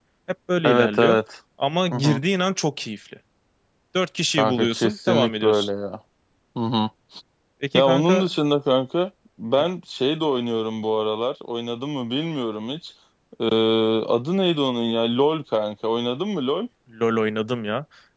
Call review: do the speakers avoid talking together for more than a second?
No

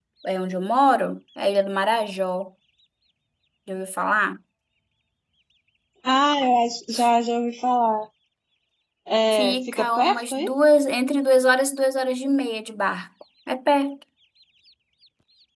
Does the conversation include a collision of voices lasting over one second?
Yes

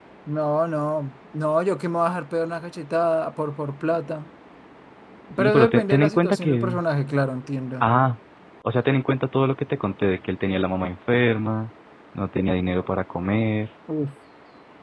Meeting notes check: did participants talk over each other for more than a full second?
Yes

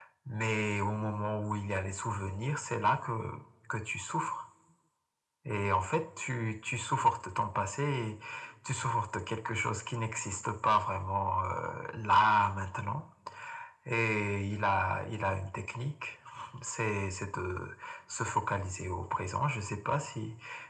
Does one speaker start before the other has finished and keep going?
No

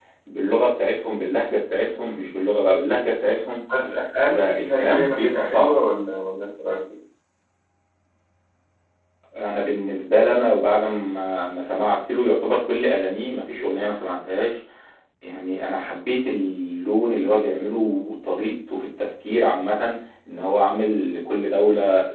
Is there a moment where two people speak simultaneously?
Yes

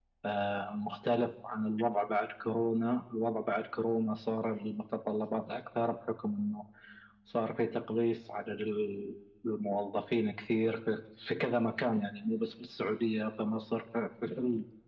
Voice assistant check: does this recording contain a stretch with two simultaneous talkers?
No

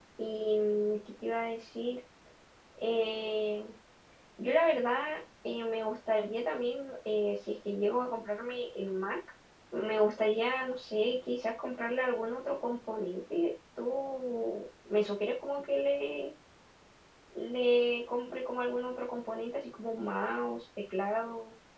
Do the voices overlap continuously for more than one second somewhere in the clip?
No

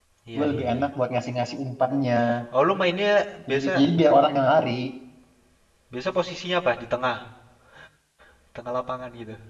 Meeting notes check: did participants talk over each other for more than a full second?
No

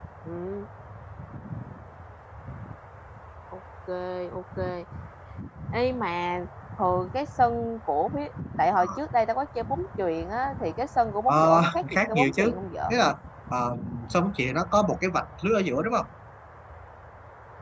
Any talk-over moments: Yes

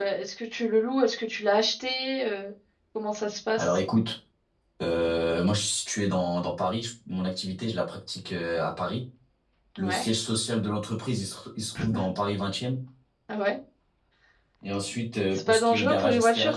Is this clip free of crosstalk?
No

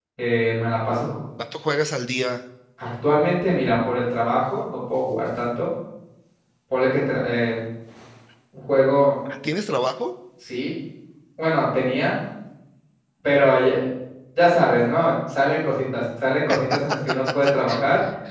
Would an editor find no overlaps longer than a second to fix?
Yes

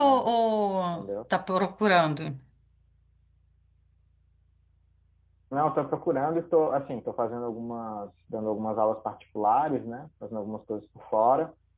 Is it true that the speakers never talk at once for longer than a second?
Yes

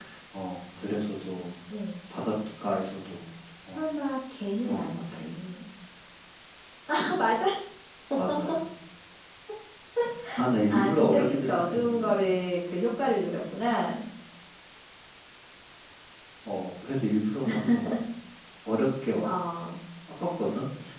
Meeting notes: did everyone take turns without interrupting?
No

